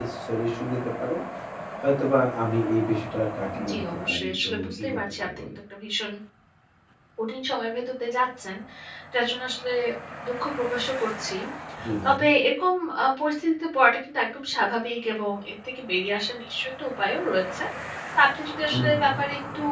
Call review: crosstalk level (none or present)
present